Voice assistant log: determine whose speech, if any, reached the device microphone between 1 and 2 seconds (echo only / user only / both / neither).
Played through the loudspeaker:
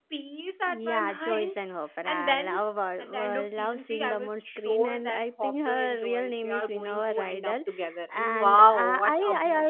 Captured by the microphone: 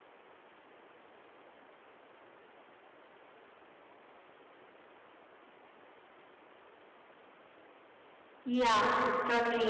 neither